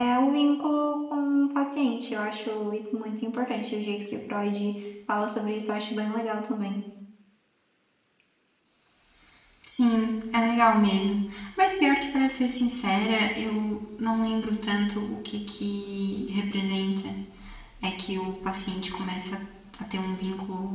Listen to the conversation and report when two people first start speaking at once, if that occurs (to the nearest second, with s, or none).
none